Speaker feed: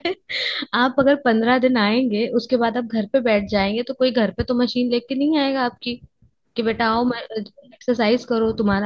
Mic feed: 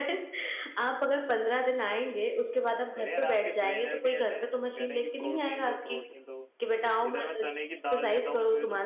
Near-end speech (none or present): present